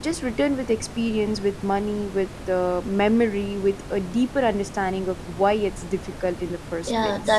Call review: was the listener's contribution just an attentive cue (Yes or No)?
No